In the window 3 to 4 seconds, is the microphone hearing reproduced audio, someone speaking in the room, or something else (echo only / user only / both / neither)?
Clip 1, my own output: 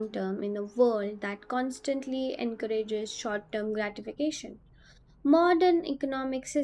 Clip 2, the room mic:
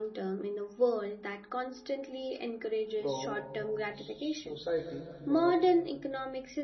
both